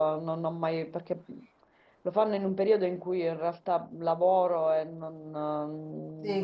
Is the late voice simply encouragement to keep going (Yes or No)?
No